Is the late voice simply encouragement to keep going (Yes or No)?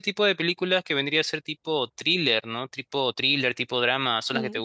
No